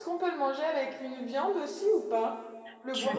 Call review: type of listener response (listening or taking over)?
taking over